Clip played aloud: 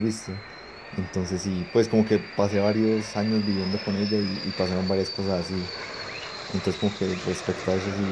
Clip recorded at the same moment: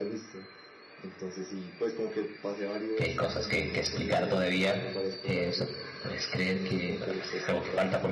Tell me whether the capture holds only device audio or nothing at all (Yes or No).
No